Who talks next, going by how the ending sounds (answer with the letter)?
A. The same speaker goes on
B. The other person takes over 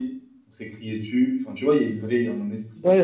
B